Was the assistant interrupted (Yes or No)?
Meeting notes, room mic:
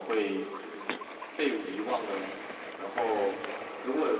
No